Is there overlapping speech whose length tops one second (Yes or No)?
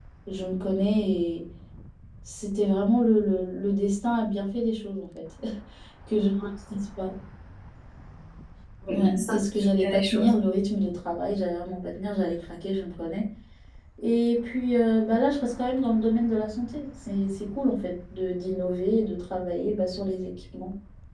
Yes